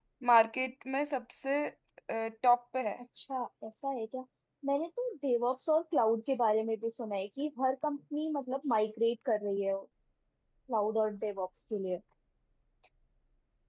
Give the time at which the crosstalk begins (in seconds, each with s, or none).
none